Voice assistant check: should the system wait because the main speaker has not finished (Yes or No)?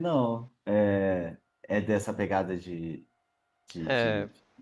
No